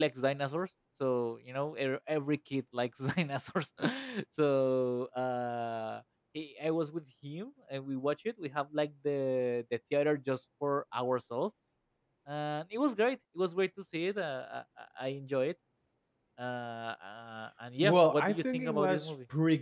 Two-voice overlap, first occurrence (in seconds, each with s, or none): 17.8 s